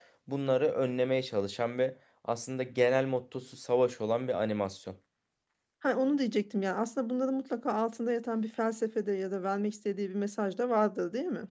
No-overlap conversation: Yes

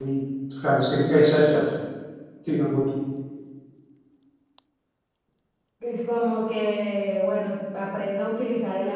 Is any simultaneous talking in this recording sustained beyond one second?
No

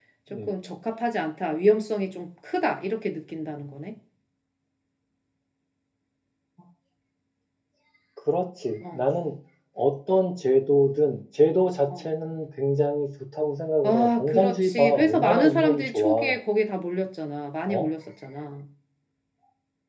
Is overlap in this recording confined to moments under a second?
No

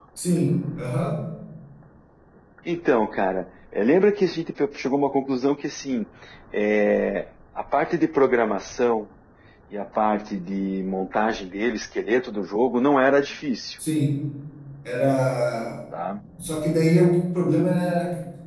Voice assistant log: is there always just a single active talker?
Yes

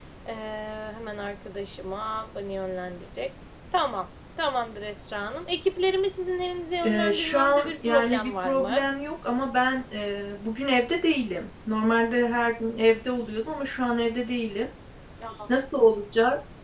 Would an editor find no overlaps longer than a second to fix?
No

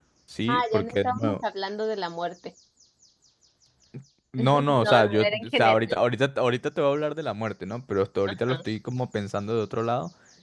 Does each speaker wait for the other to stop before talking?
No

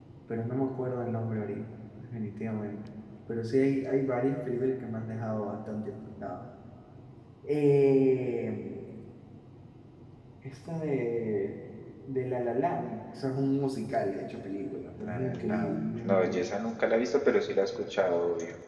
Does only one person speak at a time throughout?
No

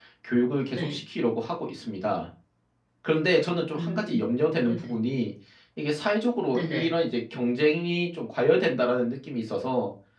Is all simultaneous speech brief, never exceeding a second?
Yes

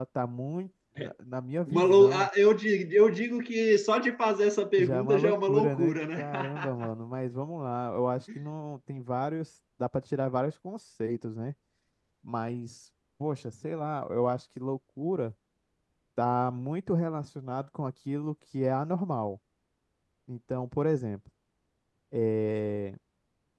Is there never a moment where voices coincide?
No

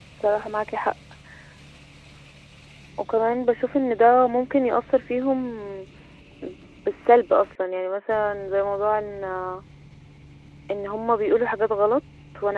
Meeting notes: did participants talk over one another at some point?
No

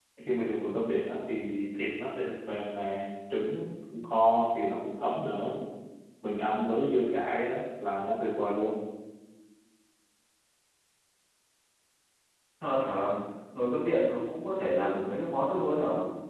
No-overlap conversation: Yes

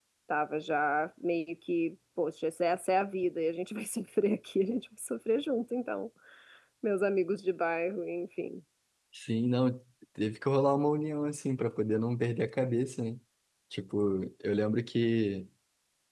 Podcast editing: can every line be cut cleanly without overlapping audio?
Yes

